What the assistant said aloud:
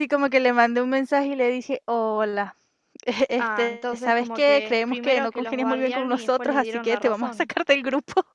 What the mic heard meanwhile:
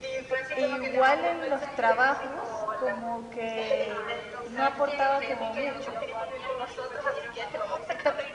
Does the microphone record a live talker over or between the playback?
Yes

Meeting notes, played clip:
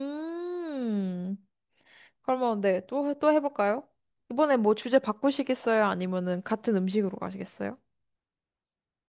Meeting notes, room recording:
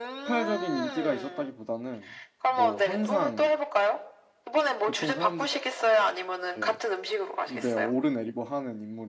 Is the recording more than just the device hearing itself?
Yes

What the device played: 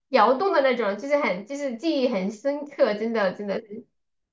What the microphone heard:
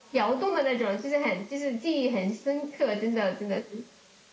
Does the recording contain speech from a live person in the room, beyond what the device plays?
No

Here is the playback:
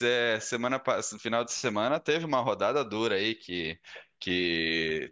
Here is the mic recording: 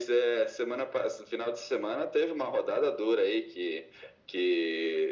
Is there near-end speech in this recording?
No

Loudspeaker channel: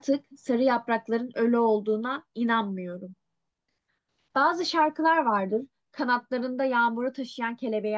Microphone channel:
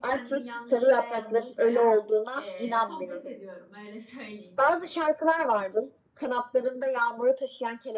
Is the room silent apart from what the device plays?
No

